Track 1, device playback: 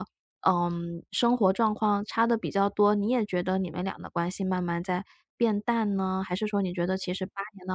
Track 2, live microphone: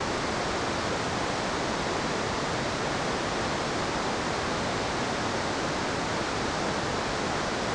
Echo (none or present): none